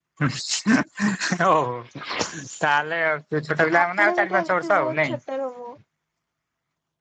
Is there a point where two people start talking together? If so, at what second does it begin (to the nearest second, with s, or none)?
4 s